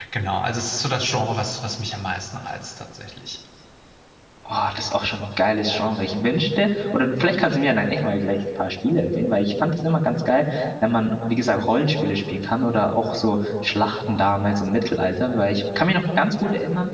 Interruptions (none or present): none